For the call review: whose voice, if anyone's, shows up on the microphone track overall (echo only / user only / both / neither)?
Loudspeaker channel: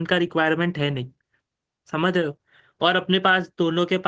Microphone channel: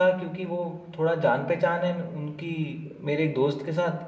user only